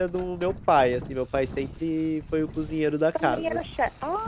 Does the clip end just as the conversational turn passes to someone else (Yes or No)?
Yes